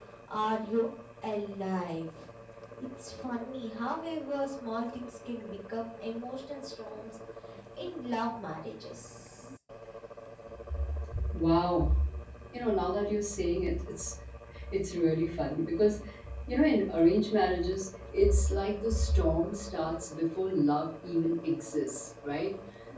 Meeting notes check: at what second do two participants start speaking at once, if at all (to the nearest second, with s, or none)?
none